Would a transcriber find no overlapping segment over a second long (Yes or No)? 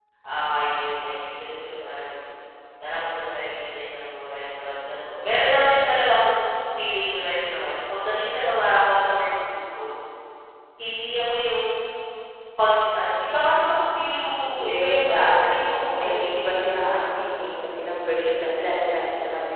No